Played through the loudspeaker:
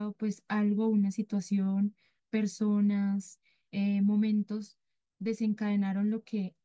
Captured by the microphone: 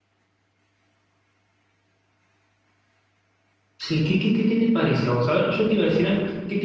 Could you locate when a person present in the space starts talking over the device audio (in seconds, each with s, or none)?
3.8 s